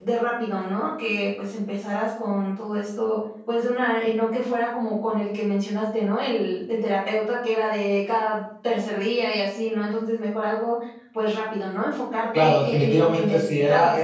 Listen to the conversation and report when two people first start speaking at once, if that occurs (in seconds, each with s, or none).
12.3 s